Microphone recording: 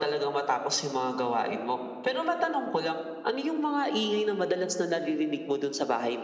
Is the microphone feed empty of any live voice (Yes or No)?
Yes